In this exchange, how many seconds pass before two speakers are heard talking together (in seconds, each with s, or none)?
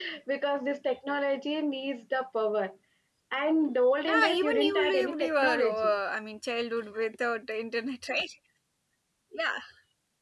4.1 s